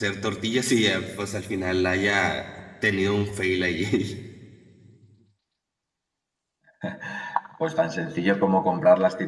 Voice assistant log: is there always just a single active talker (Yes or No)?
Yes